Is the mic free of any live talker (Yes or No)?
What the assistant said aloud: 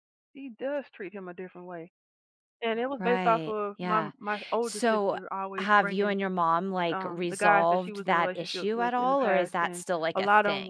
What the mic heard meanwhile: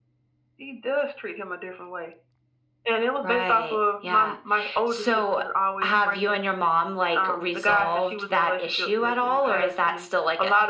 Yes